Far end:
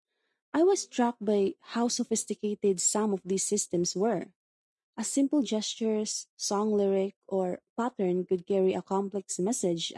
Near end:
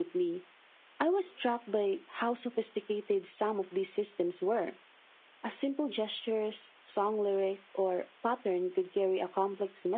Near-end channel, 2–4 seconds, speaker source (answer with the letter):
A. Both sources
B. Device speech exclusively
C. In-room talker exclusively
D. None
B